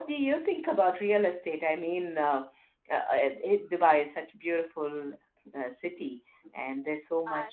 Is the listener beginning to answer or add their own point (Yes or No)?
No